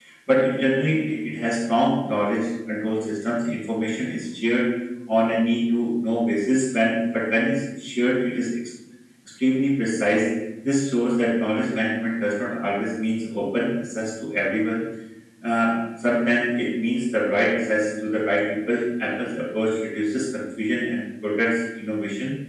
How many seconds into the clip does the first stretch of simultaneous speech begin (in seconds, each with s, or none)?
none